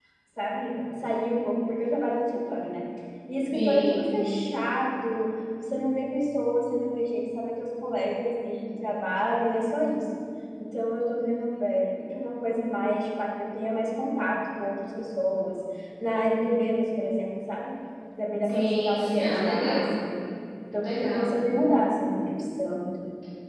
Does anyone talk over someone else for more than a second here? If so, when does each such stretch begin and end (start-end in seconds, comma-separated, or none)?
18.4-20.0